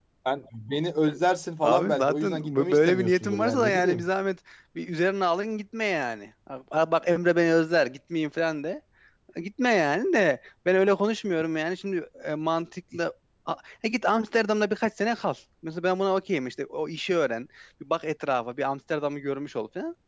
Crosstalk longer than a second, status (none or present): present